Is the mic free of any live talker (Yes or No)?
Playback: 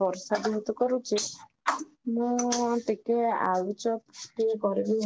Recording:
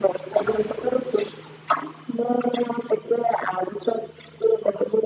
Yes